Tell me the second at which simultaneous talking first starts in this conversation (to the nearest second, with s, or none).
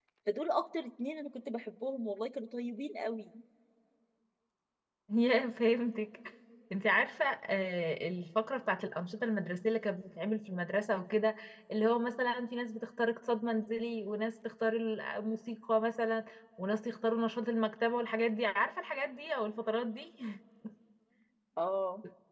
none